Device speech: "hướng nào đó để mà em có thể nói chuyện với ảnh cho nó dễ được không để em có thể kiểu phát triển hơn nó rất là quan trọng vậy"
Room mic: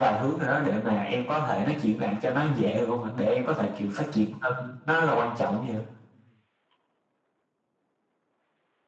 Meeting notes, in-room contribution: none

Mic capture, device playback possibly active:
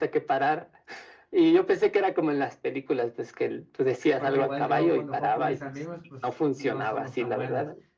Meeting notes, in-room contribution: present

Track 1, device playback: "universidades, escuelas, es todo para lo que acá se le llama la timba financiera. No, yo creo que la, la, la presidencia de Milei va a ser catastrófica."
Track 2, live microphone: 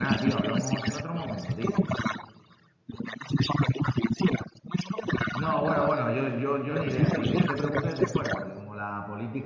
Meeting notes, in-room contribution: present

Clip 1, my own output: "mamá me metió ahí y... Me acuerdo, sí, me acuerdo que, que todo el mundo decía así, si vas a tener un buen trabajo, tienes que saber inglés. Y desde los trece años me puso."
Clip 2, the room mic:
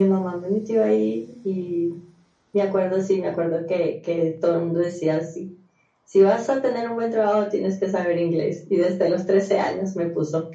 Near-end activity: none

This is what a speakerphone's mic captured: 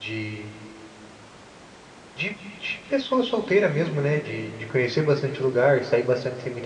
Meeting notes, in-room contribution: present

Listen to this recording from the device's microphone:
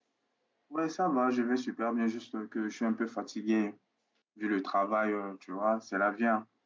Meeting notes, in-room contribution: present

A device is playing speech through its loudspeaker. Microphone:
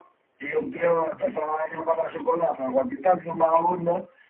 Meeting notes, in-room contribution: none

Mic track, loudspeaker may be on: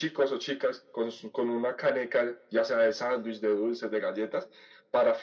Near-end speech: none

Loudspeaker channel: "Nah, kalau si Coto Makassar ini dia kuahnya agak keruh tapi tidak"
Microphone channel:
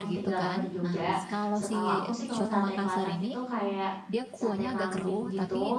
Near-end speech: present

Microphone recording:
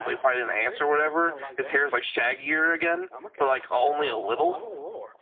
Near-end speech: present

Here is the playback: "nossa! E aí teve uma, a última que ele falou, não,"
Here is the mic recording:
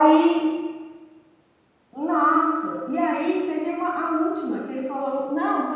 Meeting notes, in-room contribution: none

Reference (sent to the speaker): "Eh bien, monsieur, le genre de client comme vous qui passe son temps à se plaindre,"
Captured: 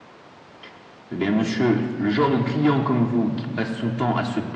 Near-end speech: none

